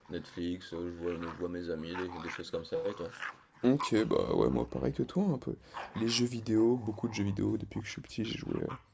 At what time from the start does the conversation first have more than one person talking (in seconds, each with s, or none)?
none